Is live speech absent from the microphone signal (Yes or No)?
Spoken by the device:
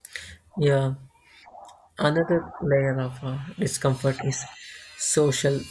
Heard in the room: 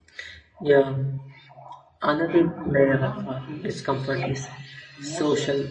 No